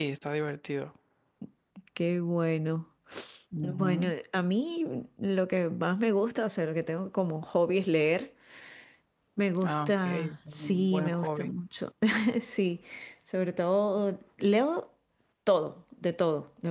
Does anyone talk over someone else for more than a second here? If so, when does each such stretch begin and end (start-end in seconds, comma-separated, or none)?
9.6-11.5